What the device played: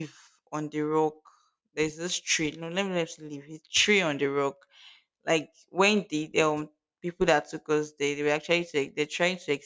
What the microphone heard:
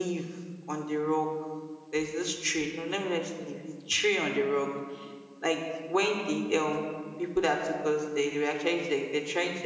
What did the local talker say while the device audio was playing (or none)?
none